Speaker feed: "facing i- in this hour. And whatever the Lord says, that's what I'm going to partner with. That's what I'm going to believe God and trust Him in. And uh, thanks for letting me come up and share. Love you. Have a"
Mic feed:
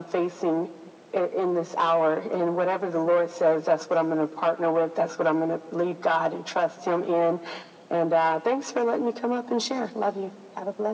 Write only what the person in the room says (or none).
none